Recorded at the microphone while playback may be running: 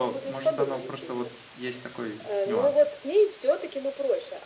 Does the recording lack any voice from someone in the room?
No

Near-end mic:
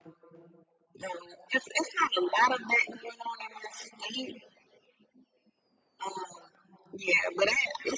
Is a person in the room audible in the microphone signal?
No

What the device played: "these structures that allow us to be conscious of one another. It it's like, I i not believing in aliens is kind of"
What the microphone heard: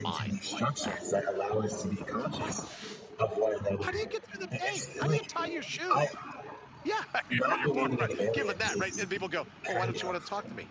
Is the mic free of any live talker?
No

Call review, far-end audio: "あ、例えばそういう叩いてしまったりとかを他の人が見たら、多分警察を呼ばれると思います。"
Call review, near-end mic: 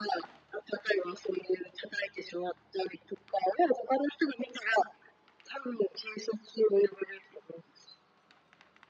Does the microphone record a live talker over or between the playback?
No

